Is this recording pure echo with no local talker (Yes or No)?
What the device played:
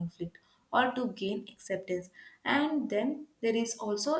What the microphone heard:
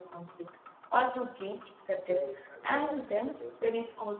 No